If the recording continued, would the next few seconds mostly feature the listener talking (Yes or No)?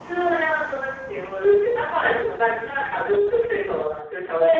Yes